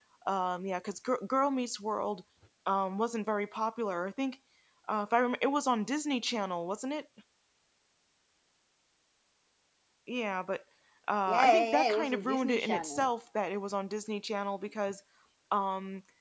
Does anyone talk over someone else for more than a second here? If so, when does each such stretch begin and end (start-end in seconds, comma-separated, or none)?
11.3-13.1